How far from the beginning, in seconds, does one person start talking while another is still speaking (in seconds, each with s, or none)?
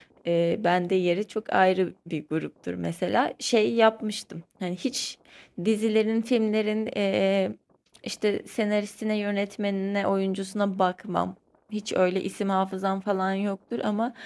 none